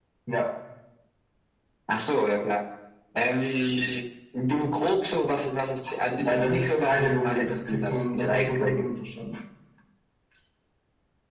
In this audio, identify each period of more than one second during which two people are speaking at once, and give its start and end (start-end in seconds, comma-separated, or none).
6.2-8.9